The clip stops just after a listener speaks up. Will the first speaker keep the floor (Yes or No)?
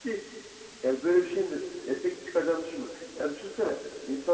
Yes